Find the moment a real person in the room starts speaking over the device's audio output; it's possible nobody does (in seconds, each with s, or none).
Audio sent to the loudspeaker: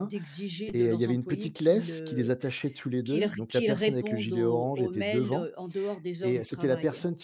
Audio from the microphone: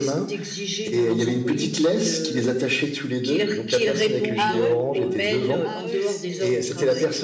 4.4 s